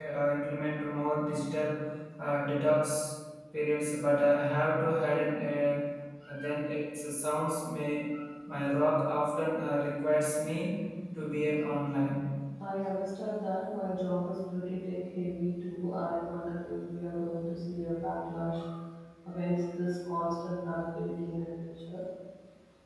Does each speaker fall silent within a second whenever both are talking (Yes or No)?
Yes